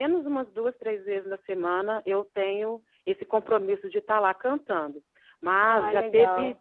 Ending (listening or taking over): listening